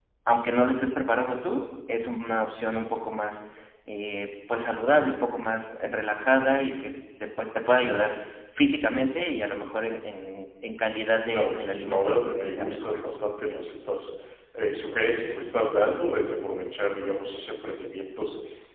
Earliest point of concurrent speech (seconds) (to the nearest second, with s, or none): 11 s